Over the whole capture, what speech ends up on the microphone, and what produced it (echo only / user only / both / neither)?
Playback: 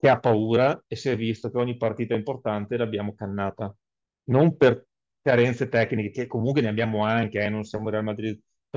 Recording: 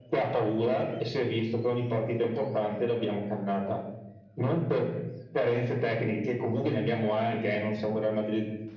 echo only